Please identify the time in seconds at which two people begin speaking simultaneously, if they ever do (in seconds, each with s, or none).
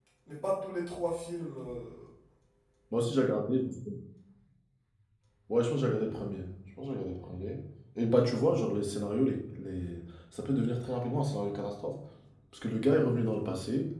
none